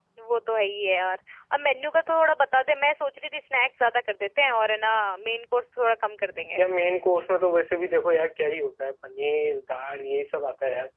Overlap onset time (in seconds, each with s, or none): none